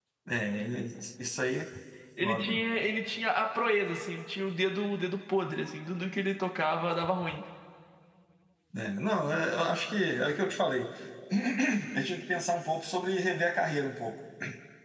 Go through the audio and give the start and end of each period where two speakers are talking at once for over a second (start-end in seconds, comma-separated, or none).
none